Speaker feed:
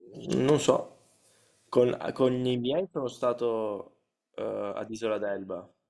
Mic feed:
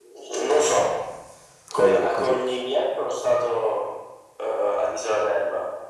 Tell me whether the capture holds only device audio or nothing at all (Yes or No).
No